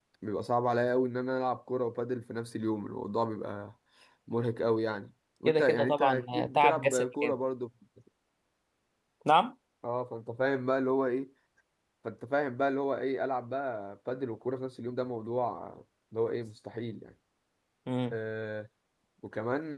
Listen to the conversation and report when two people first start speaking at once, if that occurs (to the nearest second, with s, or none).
5 s